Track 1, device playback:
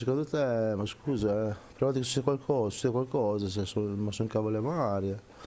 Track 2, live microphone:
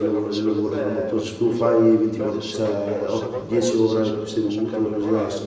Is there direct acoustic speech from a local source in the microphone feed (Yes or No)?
Yes